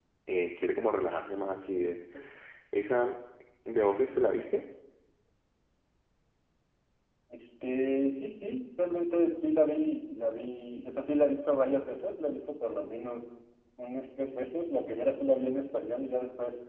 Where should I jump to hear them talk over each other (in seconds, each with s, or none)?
none